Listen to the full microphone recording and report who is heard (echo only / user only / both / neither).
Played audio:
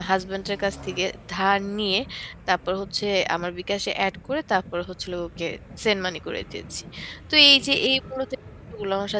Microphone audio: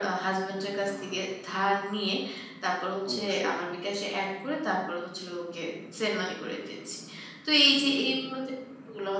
both